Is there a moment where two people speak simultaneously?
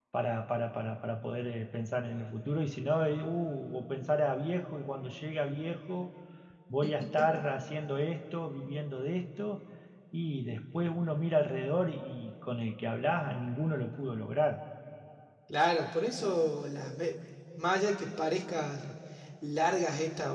No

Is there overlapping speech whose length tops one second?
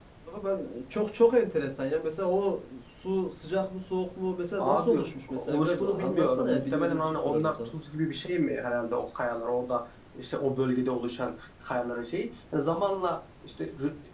Yes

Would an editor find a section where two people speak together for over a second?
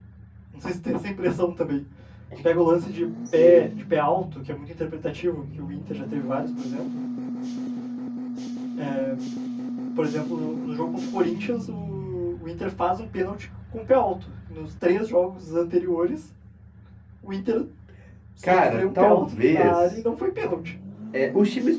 Yes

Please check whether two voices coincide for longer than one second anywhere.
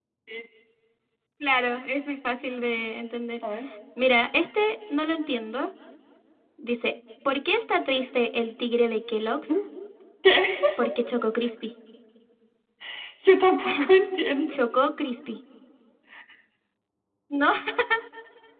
No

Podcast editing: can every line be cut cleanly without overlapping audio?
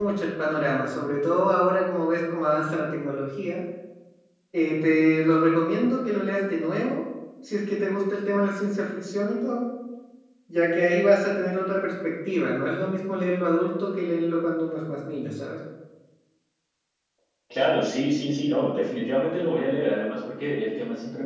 Yes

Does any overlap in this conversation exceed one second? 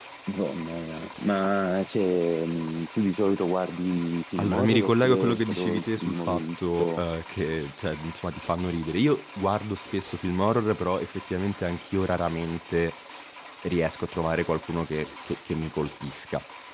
Yes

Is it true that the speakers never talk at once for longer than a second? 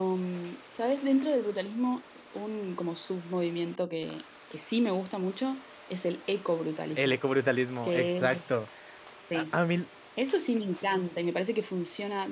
Yes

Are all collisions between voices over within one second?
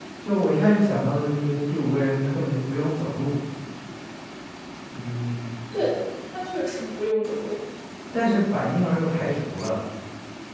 Yes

